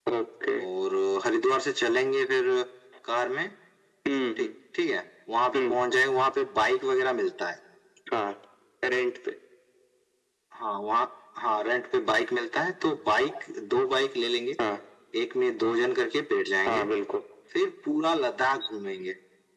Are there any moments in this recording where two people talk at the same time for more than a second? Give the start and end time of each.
none

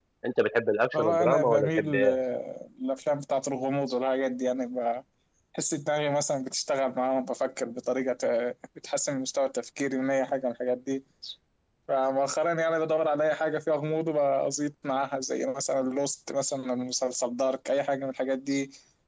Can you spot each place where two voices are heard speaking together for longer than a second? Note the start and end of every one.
0.9-2.2

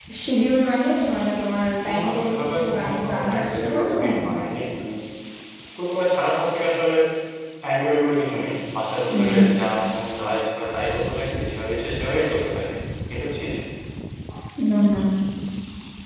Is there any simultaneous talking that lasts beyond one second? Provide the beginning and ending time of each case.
2.0-4.3

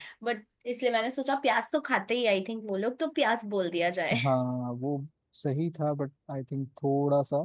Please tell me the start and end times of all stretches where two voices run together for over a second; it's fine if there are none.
none

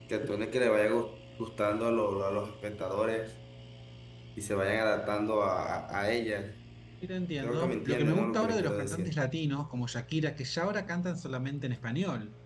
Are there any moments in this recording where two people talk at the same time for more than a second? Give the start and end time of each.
7.4-9.1

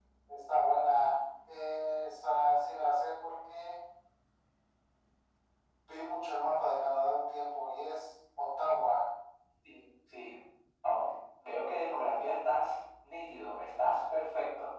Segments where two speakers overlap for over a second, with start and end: none

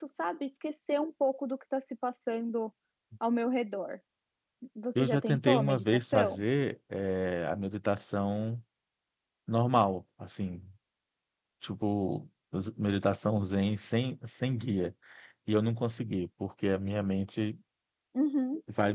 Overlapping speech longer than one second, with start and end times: 5.0-6.4

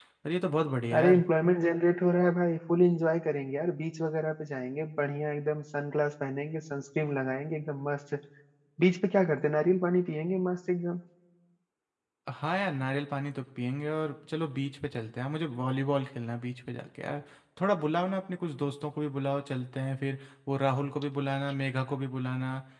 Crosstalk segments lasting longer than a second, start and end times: none

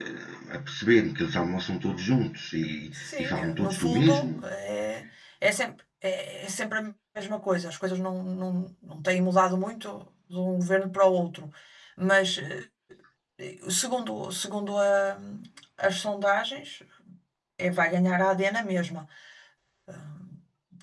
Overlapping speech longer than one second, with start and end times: 2.9-4.3

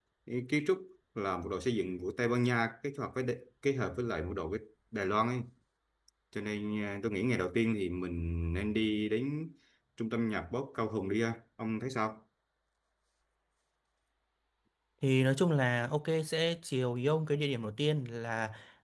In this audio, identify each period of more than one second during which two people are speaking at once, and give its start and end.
none

